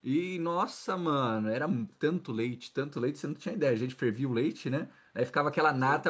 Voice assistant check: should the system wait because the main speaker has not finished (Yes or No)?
Yes